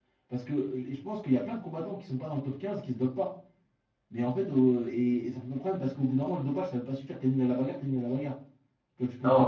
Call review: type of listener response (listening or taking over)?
taking over